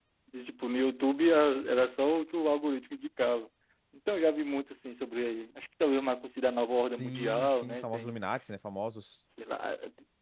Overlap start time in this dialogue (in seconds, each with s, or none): 7.0 s